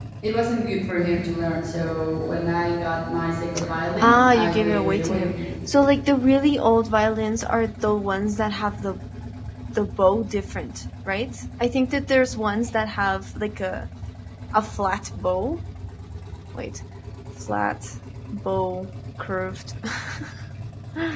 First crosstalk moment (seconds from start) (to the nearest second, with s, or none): 4 s